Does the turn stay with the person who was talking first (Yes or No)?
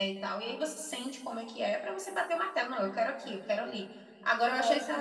Yes